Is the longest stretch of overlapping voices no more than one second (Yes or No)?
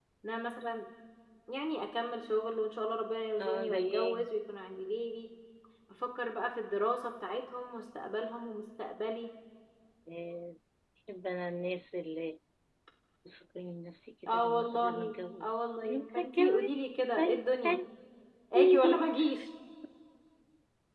No